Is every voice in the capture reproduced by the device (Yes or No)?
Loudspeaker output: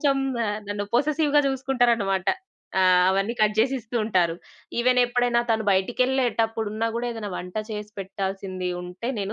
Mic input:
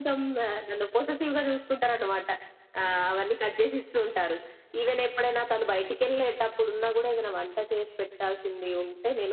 Yes